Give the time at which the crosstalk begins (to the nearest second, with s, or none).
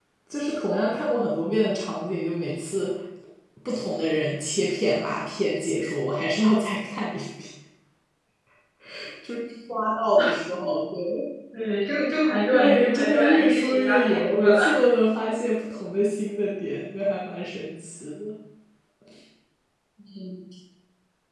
13 s